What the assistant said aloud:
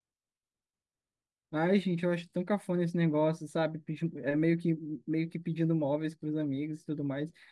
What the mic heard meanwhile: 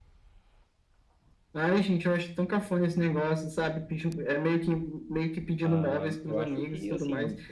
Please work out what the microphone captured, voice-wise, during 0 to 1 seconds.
neither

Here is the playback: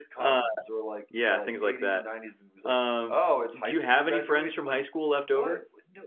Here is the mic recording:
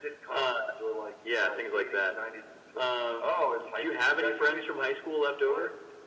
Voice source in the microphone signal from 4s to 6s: echo only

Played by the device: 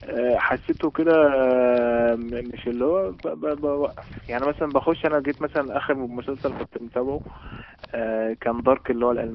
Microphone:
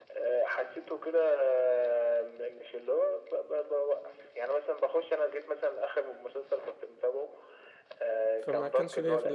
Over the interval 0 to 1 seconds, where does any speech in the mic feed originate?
echo only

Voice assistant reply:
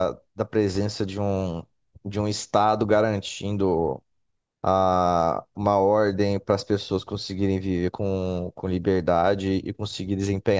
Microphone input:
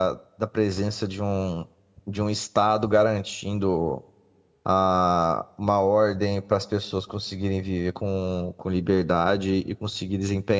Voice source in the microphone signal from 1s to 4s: echo only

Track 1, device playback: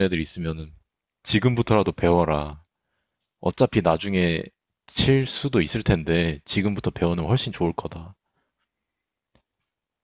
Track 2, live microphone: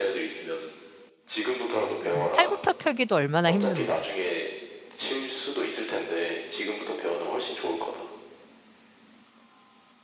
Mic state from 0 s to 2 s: echo only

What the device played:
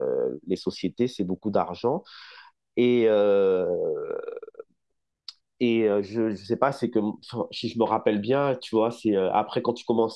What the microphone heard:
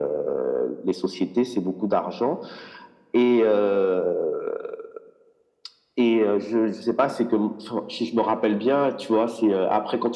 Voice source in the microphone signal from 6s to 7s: echo only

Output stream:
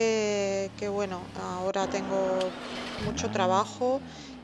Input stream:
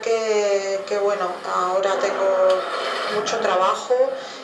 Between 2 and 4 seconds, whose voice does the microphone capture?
echo only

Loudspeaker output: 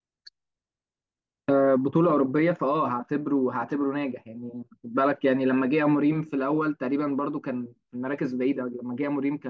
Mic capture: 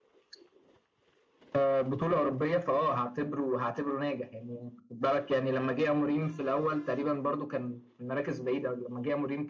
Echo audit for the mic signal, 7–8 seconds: echo only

